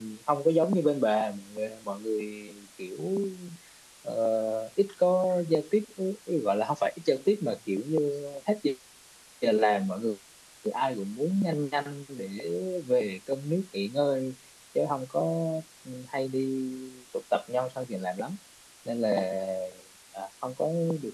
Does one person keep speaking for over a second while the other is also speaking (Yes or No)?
No